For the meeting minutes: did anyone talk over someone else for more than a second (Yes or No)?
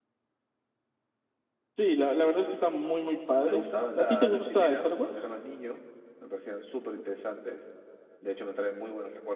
Yes